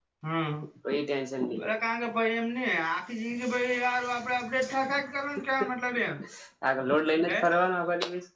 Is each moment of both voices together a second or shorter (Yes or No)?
Yes